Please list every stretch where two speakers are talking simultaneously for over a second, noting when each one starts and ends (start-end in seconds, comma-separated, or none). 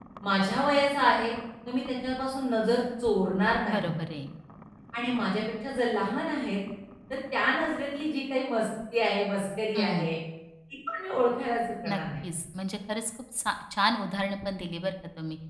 none